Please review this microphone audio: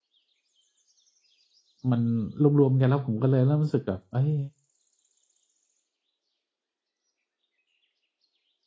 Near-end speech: present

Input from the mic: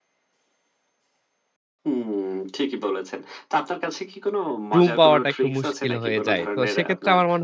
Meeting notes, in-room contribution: present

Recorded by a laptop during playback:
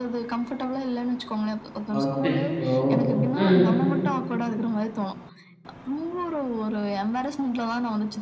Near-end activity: present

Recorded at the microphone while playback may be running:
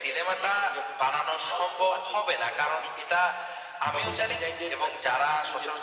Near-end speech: present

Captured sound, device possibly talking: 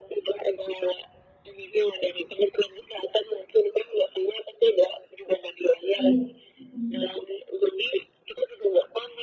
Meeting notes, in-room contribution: present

